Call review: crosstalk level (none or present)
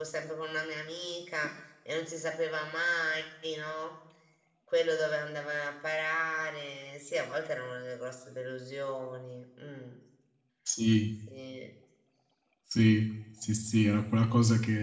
none